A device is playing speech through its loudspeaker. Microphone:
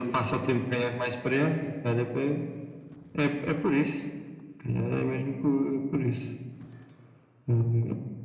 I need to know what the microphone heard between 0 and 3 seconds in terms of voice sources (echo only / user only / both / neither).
echo only